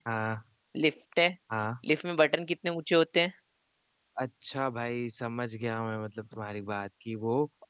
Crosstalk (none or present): none